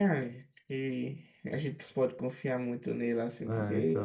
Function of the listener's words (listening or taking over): taking over